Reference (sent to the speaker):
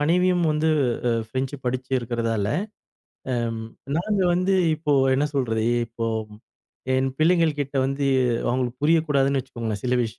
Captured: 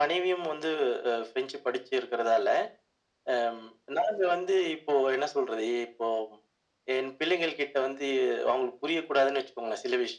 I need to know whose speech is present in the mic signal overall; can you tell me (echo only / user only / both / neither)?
echo only